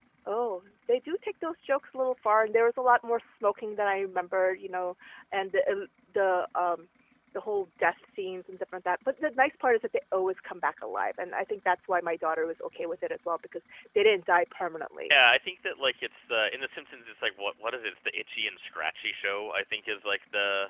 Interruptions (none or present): none